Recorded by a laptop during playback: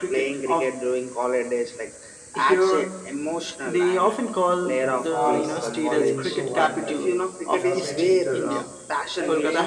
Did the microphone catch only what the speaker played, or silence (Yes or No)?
No